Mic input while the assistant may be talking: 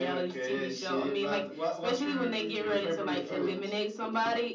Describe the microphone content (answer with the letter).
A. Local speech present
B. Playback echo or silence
B